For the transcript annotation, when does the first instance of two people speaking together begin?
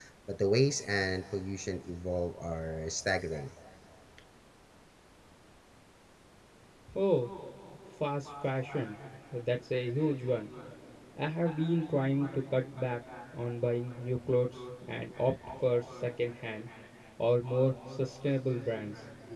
none

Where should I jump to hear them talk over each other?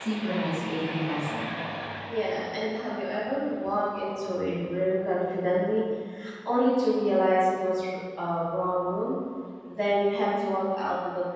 none

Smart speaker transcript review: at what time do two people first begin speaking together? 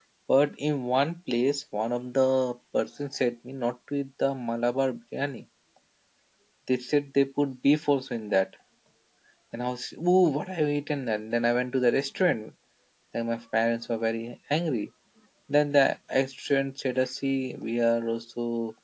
none

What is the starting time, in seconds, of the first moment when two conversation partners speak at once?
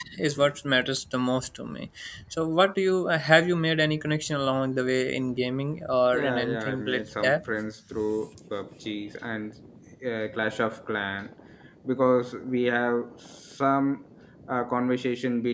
6.1 s

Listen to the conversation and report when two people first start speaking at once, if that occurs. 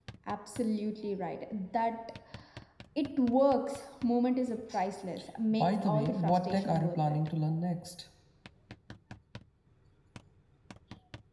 5.5 s

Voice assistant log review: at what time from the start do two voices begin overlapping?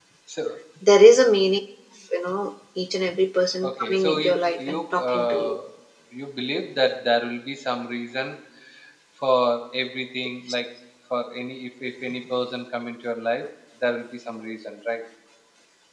3.6 s

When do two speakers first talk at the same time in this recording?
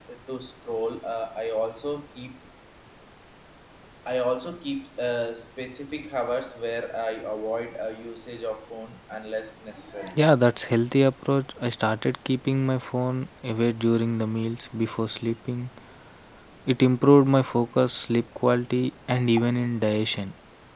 none

